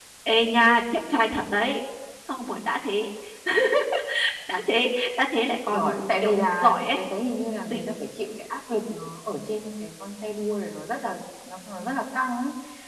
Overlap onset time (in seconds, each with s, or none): 5.7 s